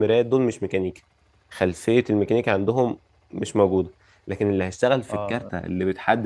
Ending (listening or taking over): listening